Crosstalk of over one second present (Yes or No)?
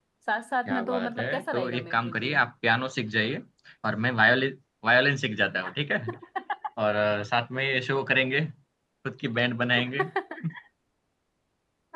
Yes